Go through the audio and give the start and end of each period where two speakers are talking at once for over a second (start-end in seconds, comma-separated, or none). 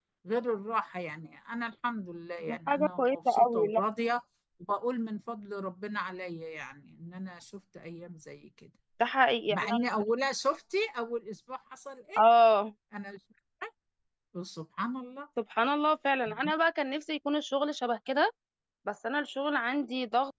2.5-3.8